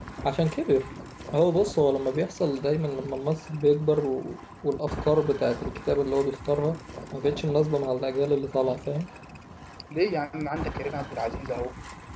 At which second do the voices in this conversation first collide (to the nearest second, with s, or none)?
none